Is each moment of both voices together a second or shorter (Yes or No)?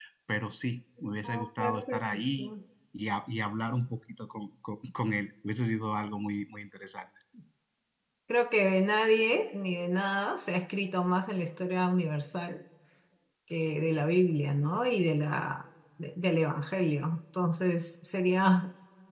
No